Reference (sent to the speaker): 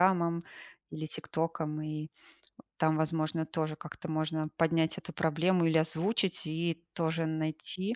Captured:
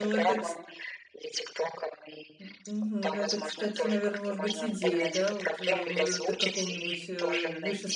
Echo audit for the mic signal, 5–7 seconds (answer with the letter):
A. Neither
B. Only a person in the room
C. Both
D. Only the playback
C